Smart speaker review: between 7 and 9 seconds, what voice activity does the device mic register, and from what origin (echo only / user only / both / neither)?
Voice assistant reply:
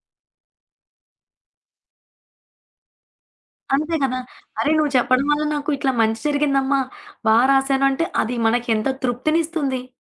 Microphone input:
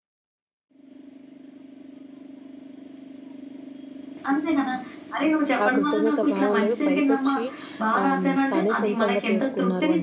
both